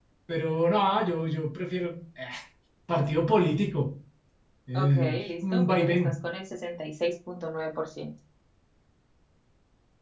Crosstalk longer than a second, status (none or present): present